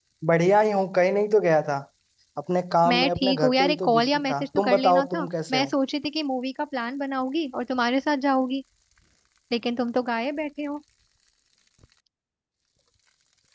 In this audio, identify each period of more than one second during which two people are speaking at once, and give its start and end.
2.9-5.7

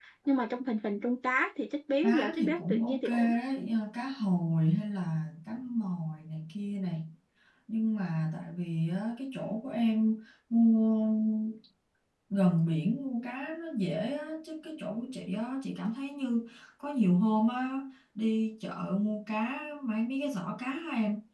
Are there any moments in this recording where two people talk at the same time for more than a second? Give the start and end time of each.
2.0-3.4

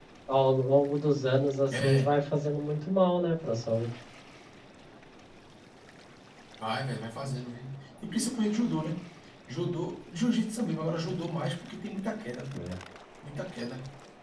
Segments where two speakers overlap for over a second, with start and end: none

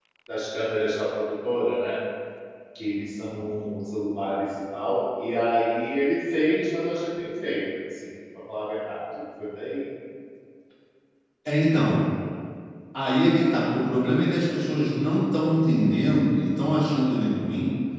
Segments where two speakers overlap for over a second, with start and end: none

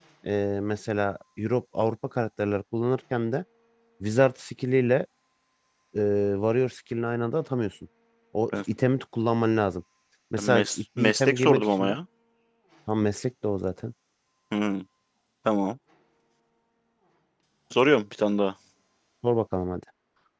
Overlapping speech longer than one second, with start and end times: 10.4-12.0

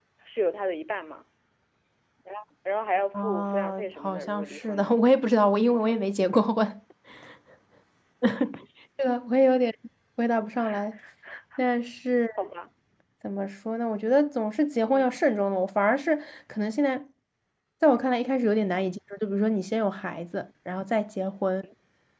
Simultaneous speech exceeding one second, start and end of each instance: 3.1-4.9

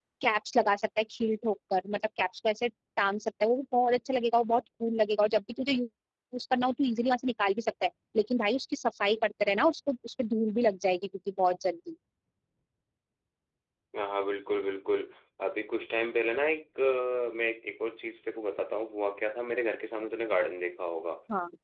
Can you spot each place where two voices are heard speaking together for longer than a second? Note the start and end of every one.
none

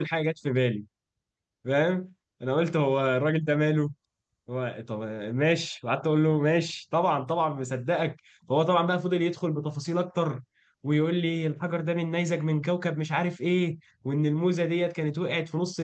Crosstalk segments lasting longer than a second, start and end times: none

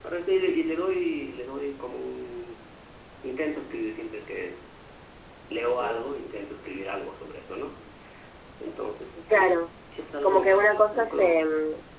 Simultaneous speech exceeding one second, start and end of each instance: 10.2-11.5

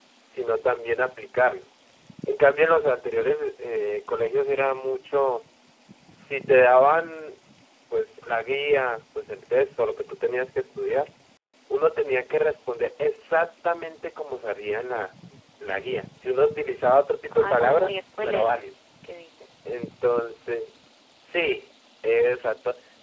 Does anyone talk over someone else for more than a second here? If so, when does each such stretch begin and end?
17.3-18.6

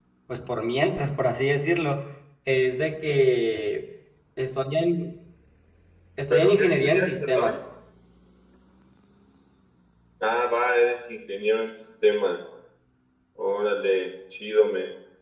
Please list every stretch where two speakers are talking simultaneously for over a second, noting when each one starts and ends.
6.3-7.5

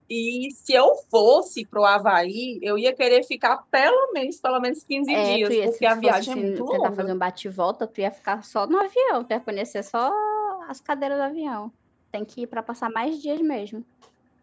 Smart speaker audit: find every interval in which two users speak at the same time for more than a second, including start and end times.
5.1-7.1

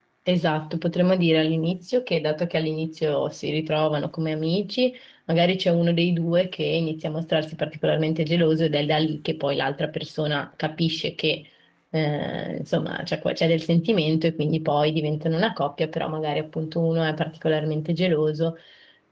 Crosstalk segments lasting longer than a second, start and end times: none

